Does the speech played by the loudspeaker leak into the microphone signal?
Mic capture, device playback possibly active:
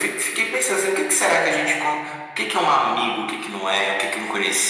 Yes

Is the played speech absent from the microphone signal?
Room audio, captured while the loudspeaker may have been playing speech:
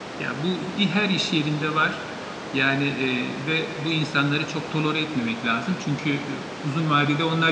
Yes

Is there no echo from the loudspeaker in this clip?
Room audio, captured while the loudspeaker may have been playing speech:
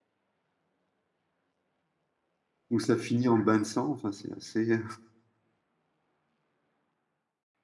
Yes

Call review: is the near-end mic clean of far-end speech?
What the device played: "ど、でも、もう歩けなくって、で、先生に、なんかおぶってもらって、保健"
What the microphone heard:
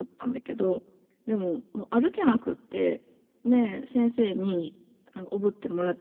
No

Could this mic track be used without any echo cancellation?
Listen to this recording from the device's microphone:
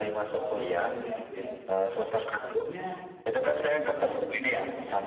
No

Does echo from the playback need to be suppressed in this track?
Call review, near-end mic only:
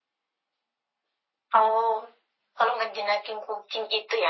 Yes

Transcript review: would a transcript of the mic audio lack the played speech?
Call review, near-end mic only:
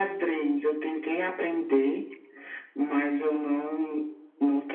No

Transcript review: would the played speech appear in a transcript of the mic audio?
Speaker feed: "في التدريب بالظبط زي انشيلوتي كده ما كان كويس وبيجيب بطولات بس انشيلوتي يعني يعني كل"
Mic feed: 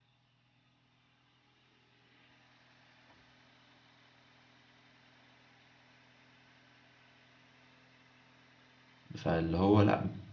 No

